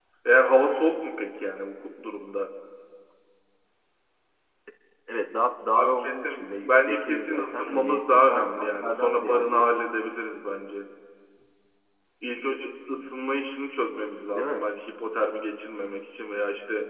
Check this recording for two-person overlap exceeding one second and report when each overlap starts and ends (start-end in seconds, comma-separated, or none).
5.7-9.7